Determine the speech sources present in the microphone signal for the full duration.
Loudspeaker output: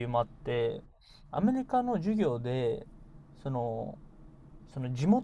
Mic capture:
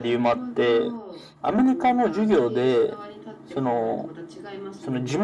both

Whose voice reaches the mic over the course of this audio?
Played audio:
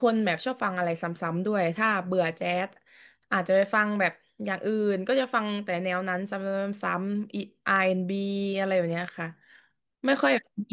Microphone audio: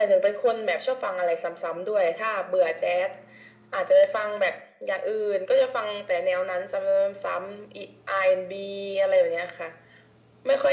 echo only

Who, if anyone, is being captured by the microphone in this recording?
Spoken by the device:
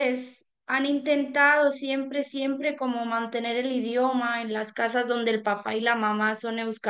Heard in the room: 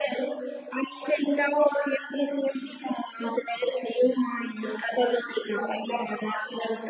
echo only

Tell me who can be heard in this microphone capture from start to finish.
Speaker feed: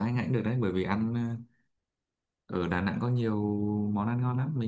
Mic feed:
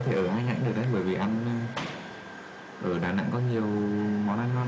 echo only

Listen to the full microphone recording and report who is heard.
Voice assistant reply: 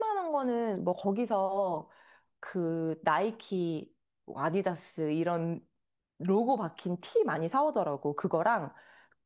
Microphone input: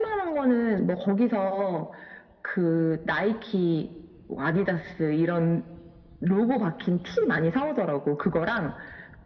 echo only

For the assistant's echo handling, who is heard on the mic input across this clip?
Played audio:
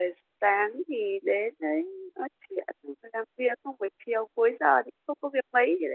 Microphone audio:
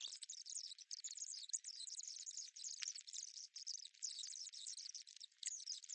neither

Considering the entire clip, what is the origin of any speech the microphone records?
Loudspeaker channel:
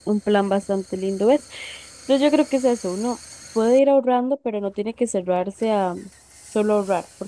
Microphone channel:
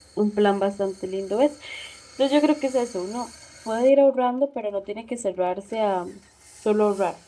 echo only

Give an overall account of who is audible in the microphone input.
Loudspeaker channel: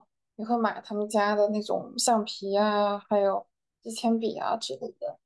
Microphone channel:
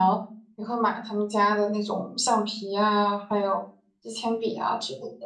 echo only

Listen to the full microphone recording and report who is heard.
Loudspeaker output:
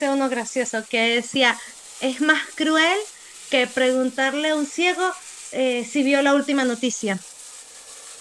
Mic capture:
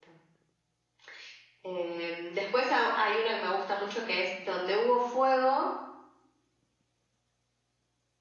user only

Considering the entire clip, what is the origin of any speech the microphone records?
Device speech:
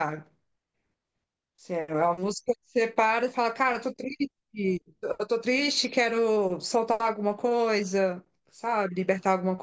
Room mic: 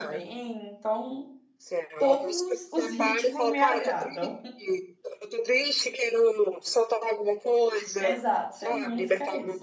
both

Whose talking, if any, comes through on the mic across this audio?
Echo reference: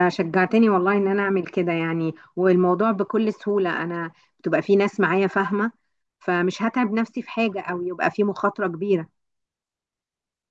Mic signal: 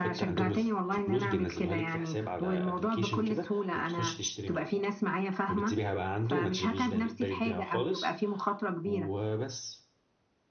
both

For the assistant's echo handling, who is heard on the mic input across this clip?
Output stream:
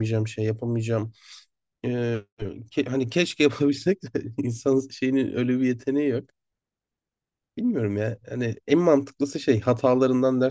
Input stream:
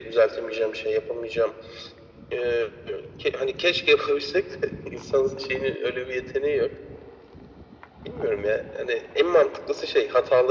echo only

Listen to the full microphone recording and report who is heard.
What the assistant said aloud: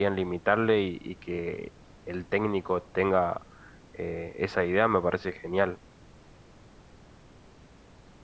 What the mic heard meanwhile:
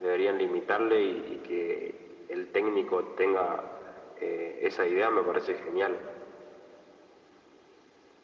echo only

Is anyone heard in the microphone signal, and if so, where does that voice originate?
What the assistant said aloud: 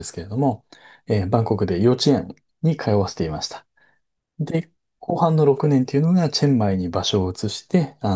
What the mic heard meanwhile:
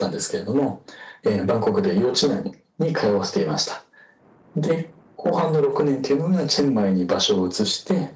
echo only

